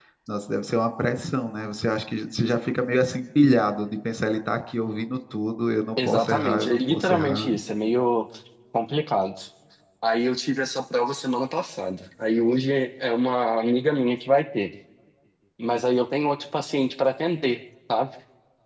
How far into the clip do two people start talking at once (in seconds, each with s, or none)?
6.0 s